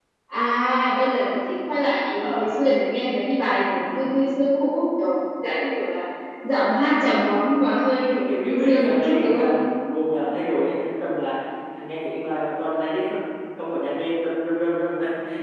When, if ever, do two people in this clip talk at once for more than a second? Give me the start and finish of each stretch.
8.2-9.5

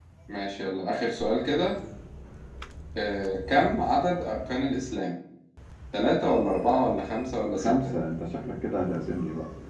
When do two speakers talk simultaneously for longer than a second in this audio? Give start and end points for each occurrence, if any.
none

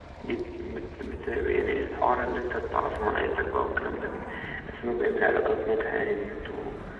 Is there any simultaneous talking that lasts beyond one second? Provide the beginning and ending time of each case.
none

